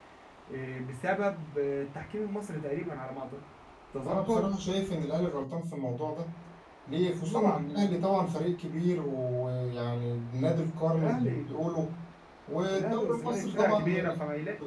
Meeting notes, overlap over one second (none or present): present